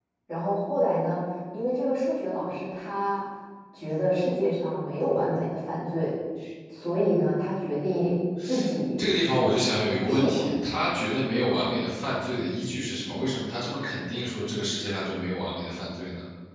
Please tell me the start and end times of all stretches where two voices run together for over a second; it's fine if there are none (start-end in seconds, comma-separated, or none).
none